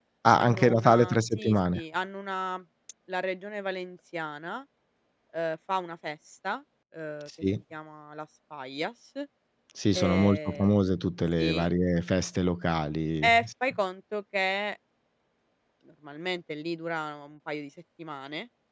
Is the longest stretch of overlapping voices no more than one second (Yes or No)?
No